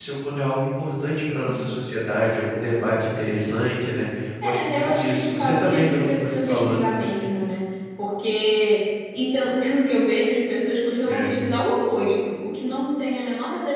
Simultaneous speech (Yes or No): Yes